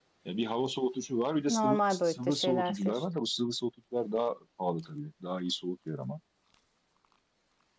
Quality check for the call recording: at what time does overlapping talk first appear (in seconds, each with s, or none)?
1.5 s